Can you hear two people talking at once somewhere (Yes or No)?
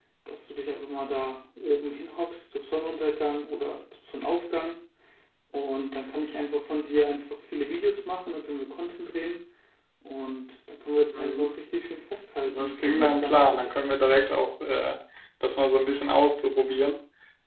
Yes